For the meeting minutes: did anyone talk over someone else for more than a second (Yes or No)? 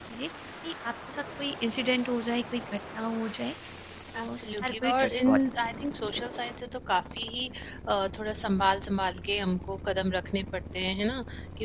Yes